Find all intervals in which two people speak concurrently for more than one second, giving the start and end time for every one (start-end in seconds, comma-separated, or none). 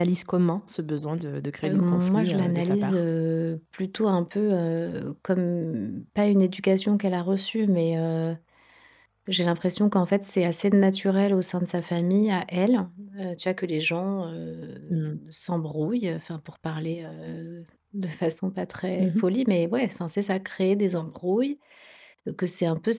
1.6-3.0